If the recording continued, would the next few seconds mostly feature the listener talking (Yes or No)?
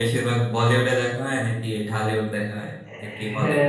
Yes